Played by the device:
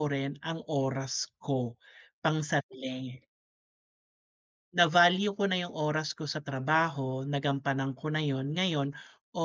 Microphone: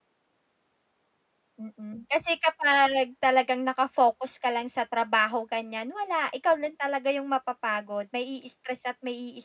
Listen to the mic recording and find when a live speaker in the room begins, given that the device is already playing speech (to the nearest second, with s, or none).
2 s